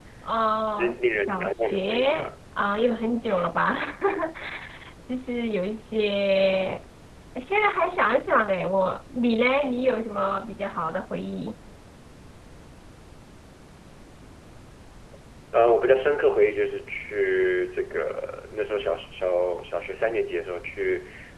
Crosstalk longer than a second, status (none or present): present